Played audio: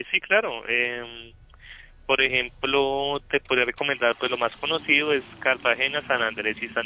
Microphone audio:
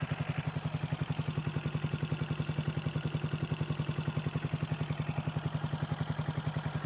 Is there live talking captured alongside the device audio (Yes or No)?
No